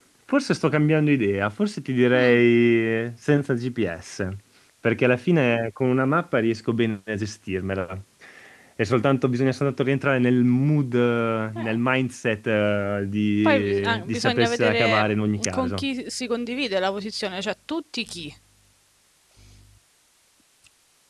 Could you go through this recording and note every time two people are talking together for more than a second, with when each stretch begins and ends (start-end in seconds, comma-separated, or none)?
13.4-15.0